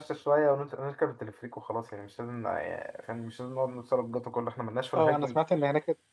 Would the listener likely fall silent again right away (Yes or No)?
No